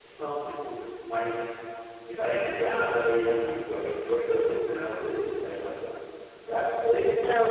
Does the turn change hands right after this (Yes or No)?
Yes